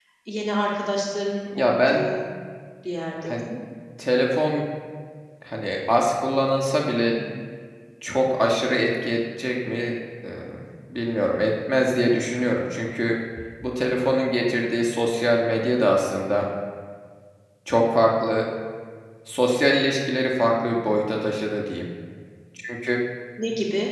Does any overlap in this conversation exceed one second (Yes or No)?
No